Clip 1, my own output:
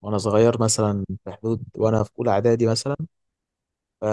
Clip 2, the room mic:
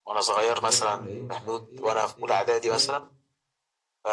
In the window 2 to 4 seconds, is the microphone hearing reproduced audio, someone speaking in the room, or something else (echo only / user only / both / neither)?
both